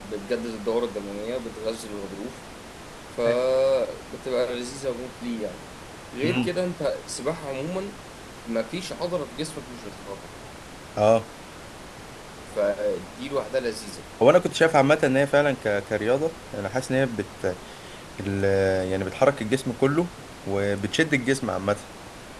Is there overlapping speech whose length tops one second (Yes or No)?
No